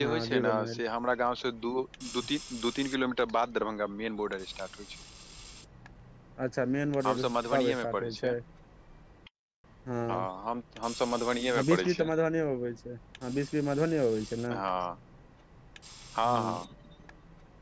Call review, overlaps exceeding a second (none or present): present